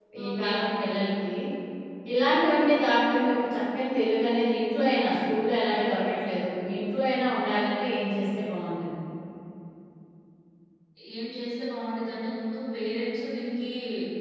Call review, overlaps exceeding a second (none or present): none